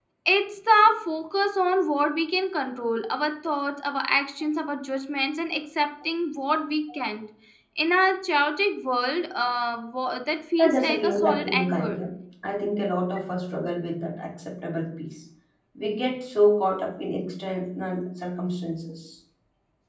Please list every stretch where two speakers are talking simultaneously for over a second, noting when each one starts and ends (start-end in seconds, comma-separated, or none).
10.6-12.0